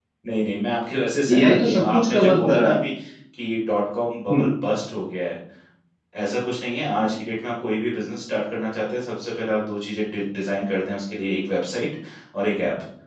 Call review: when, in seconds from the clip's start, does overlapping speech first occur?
1 s

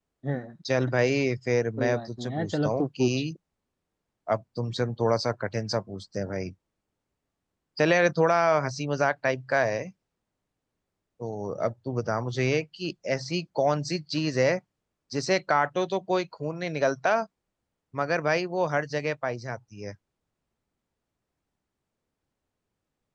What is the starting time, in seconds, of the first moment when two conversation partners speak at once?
2 s

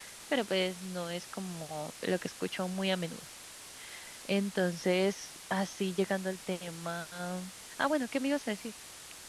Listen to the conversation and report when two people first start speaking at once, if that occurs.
none

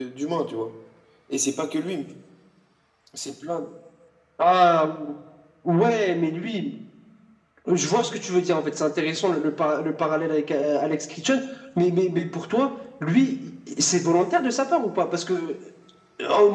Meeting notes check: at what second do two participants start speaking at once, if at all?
none

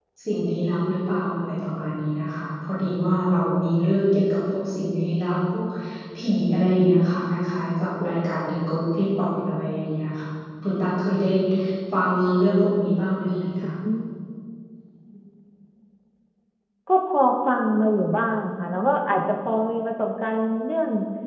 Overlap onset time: none

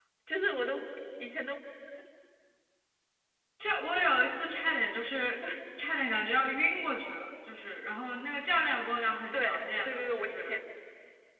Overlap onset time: 9 s

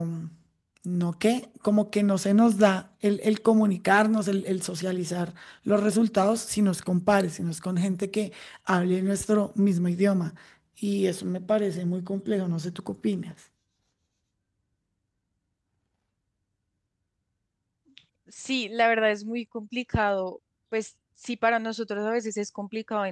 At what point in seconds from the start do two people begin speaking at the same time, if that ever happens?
none

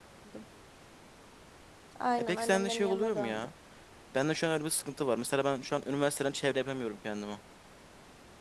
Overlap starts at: 2 s

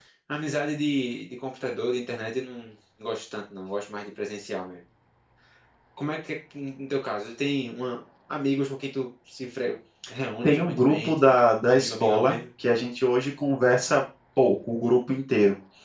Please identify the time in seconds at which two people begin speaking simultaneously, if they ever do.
10 s

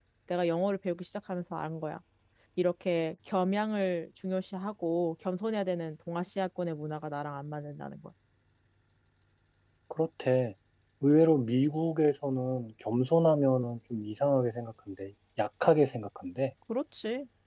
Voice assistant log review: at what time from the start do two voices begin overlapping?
none

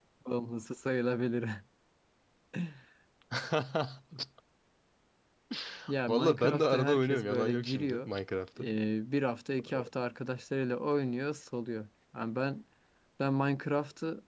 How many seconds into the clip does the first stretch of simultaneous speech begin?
6 s

